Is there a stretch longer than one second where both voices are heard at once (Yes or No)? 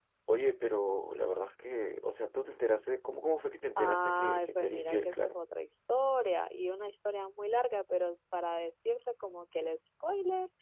Yes